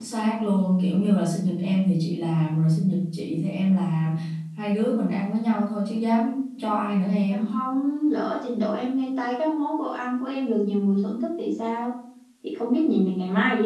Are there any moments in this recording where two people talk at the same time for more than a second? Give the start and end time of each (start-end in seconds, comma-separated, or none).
none